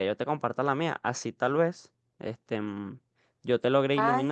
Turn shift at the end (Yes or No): No